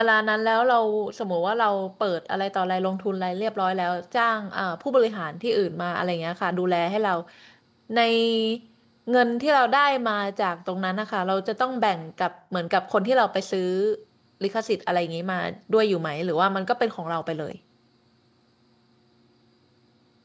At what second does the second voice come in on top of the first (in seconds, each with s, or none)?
none